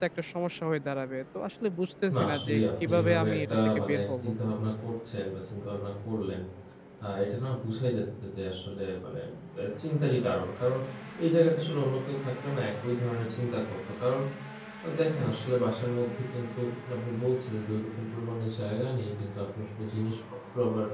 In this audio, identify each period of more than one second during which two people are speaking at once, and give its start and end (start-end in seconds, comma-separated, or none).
2.1-4.2